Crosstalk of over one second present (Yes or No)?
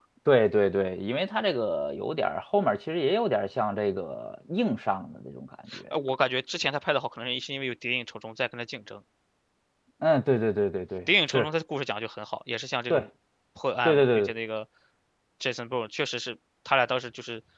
No